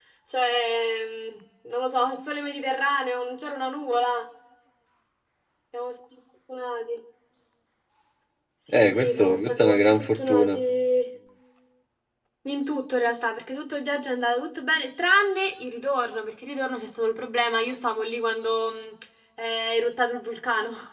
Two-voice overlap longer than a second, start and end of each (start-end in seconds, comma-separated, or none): 8.7-10.6